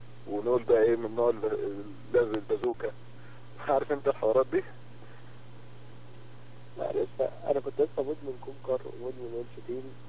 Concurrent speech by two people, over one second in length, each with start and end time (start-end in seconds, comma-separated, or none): none